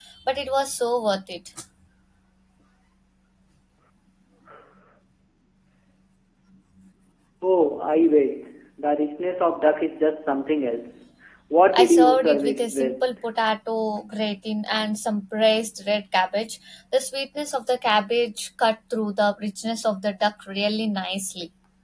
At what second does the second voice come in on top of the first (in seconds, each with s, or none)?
11.7 s